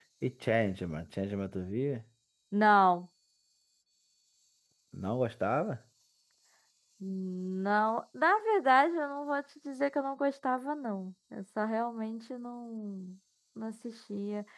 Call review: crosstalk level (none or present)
none